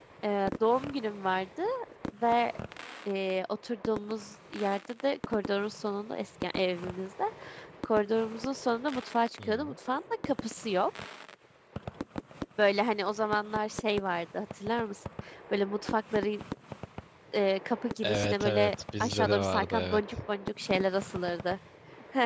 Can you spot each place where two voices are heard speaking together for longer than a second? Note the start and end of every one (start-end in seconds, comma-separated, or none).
18.0-20.1